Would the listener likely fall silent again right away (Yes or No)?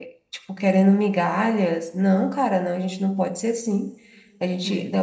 Yes